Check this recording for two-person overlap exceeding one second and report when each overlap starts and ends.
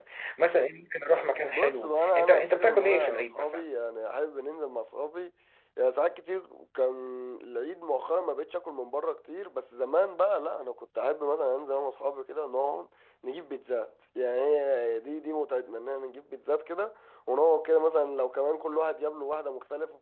1.5-3.6

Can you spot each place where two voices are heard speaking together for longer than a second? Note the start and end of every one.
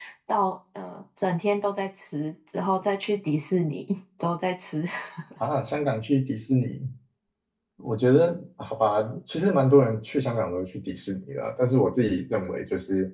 none

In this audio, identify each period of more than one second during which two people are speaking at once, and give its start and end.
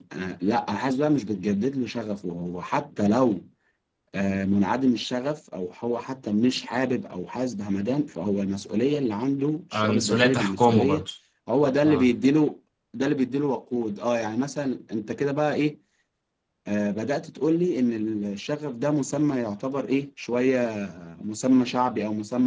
9.7-11.0

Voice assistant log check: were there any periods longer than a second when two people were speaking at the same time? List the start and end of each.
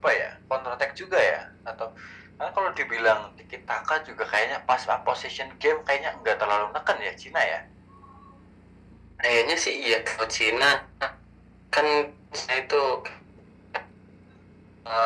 none

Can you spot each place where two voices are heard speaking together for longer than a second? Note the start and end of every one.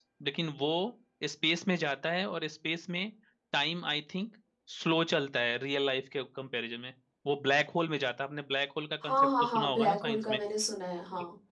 9.0-10.4

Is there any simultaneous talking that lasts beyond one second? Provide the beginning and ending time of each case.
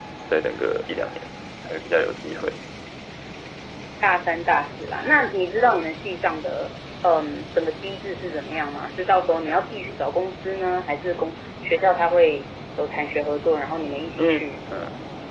none

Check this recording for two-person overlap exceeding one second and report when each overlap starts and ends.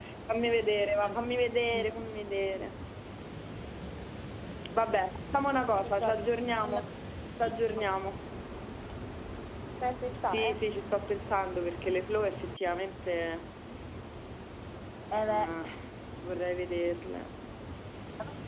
none

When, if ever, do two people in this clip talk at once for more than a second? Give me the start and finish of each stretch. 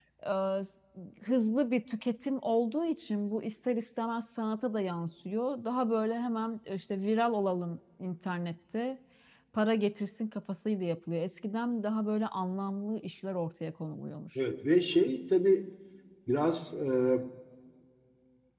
none

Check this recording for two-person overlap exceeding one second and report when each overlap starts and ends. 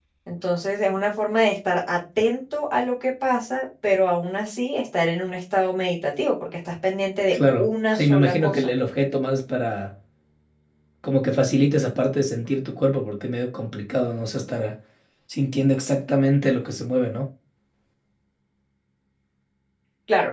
7.3-8.7

